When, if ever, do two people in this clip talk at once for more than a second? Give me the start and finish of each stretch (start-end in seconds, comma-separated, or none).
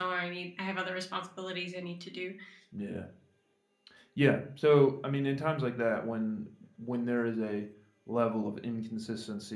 none